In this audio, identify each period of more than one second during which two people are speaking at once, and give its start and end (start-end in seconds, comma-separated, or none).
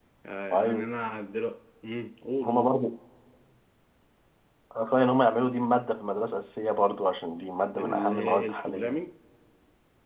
7.8-9.0